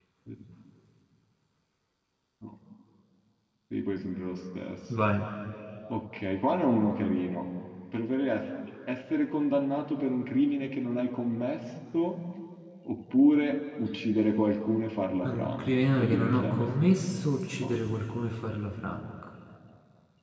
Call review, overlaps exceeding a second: present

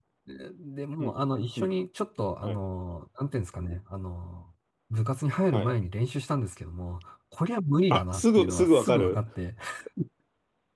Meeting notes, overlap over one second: present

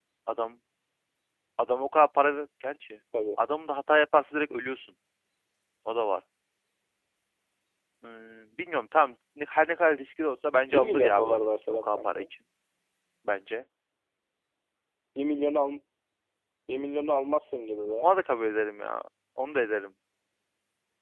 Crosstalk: present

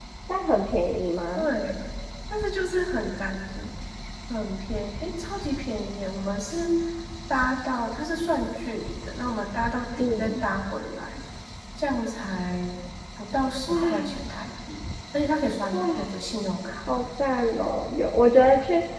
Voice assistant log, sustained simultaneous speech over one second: none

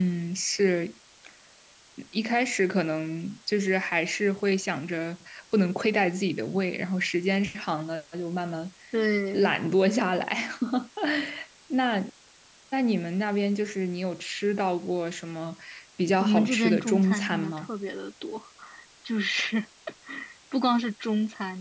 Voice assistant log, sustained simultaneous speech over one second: present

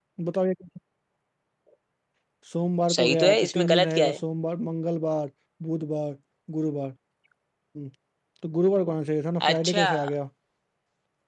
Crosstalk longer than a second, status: present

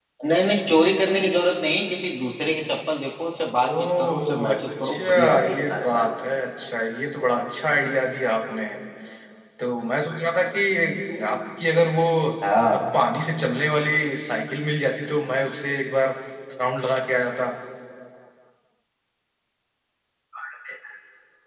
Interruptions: present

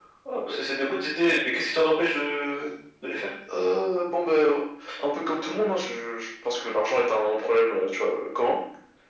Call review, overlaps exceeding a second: none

